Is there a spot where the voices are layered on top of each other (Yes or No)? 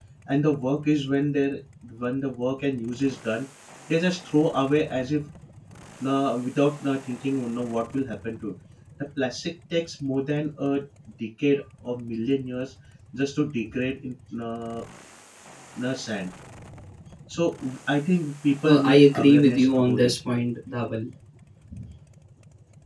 Yes